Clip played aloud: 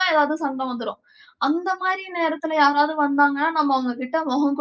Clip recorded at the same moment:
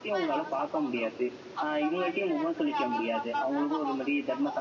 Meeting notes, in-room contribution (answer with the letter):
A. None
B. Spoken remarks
B